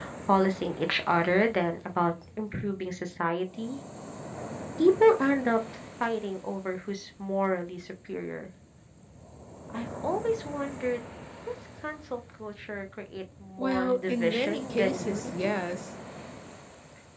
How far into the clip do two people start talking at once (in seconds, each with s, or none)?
13.6 s